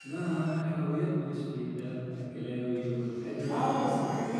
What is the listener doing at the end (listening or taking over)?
taking over